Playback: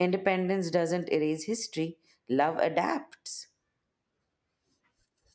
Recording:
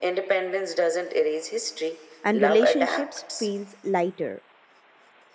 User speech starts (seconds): 2.2 s

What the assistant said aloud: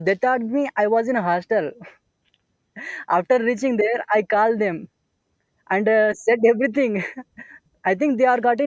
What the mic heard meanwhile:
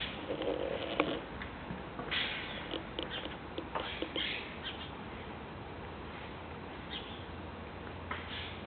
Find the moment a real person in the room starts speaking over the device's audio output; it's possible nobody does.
none

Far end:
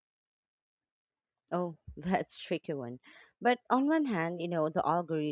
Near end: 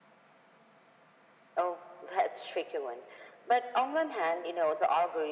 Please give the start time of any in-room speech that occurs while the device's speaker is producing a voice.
none

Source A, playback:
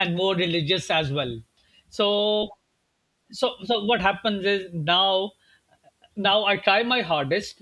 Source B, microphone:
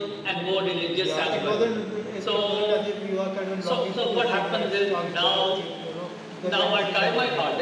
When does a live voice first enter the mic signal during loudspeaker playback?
1.0 s

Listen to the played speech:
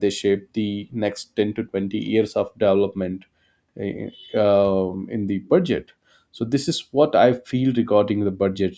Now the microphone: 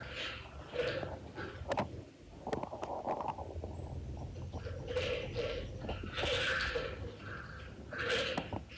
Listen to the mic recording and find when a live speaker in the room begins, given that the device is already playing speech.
none

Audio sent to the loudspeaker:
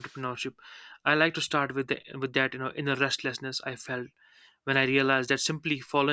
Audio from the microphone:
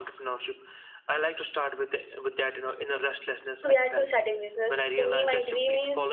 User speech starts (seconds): 3.6 s

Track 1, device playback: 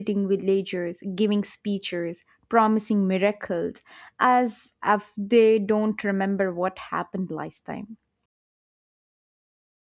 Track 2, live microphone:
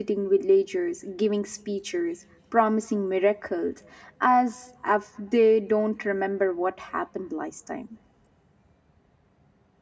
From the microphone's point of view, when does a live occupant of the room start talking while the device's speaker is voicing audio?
none

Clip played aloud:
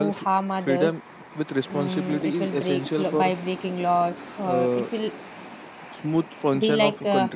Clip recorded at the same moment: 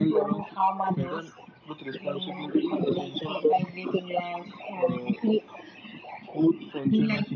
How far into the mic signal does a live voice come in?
none

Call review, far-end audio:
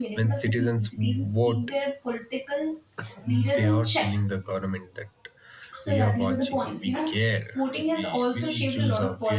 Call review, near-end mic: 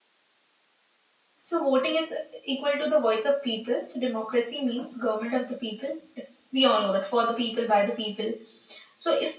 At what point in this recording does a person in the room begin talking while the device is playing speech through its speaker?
1.5 s

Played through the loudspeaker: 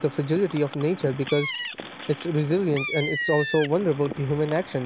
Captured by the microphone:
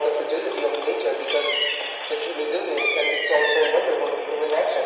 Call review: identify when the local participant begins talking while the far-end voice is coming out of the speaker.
none

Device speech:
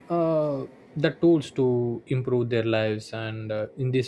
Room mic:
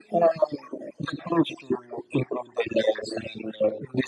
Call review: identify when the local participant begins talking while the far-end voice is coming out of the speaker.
none

